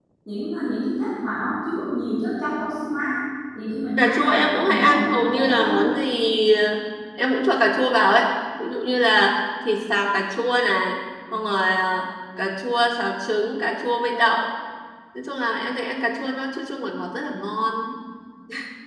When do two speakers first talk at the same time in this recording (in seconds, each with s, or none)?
4.0 s